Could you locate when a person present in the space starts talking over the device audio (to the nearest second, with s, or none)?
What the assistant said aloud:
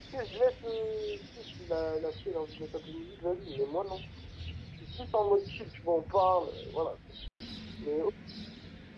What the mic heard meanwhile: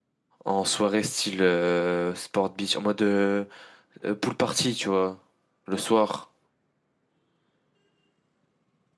0 s